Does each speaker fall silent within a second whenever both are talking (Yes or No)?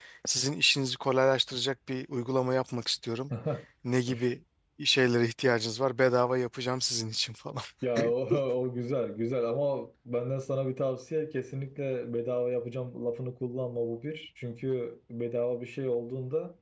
Yes